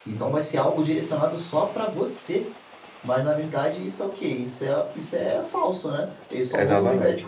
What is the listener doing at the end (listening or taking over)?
taking over